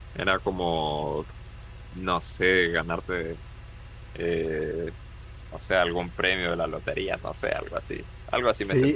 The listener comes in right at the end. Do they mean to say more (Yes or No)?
Yes